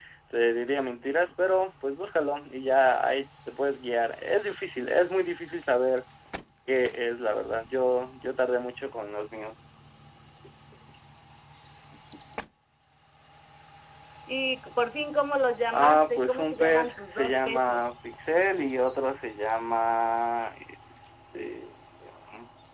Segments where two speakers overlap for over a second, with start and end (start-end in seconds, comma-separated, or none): 15.7-17.9